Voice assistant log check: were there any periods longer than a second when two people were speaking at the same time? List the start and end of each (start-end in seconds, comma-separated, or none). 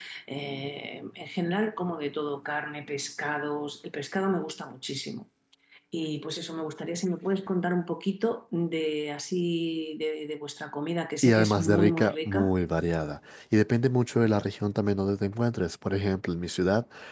11.2-12.5